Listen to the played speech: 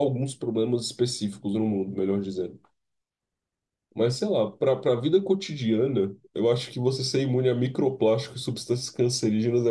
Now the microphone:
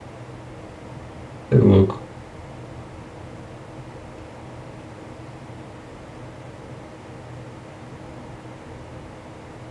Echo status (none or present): none